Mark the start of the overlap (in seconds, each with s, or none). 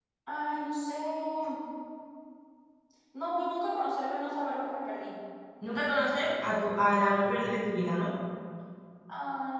none